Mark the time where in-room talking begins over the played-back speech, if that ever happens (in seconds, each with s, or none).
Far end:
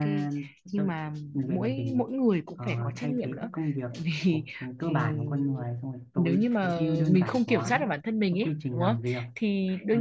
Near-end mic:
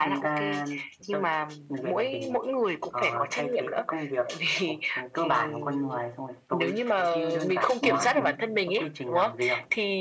7.8 s